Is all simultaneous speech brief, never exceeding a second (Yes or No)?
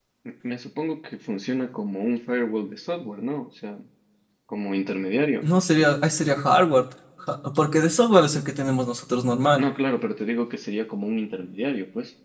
Yes